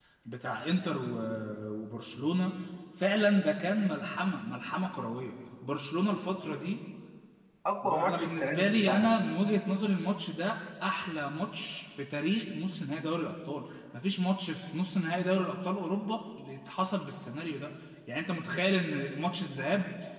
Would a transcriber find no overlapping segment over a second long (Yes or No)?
No